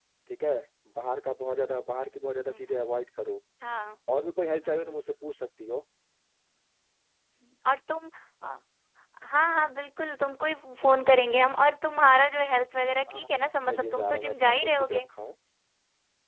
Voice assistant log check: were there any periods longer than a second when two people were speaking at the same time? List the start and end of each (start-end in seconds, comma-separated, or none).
13.1-15.0